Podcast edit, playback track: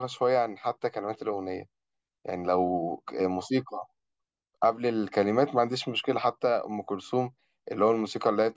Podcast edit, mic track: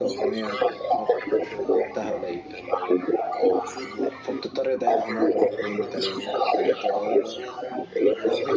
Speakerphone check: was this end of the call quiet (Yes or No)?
No